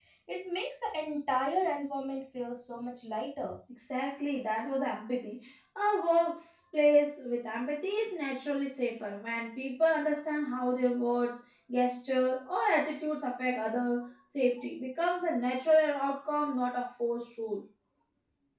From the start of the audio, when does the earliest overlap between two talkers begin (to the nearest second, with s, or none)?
none